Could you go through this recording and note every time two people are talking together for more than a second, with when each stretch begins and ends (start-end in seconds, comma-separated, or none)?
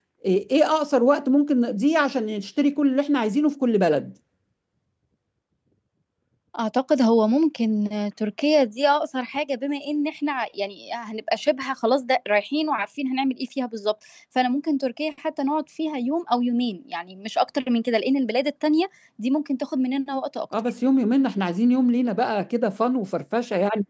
none